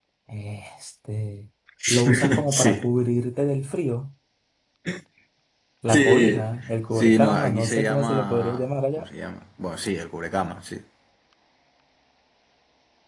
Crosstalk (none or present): present